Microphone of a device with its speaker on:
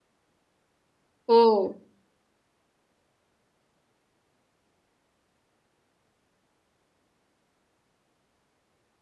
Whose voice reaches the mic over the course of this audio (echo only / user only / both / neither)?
user only